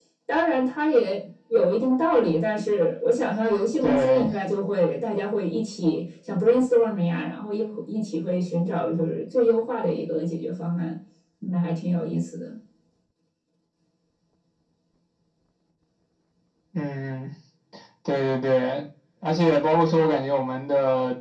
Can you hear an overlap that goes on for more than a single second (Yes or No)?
No